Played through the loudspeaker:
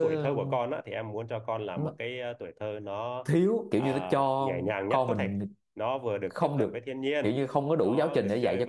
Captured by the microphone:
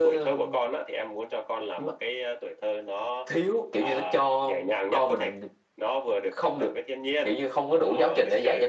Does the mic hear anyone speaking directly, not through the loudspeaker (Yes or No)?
No